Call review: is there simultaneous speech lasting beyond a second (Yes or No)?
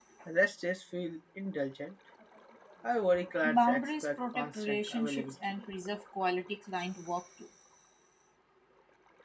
Yes